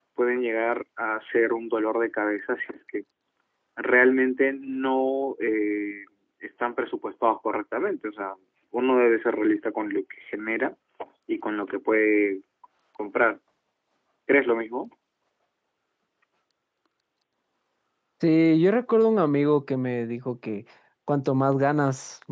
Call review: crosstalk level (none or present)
none